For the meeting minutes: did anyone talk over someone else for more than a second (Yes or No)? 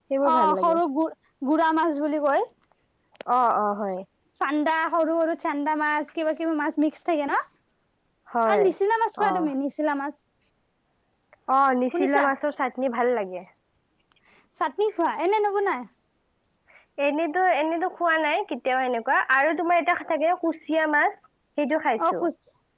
No